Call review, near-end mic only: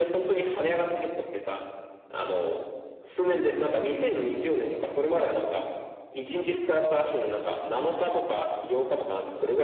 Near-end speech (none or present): none